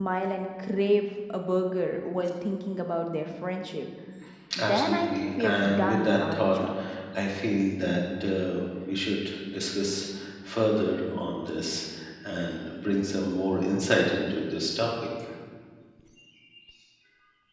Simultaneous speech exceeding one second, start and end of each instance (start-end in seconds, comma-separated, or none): 4.6-6.6